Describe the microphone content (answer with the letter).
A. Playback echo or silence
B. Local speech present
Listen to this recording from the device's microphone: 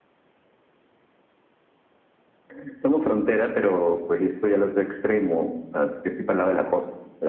A